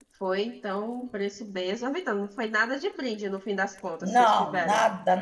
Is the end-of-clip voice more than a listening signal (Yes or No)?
Yes